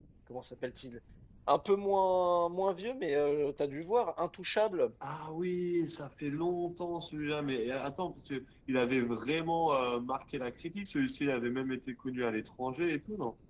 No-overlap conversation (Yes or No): Yes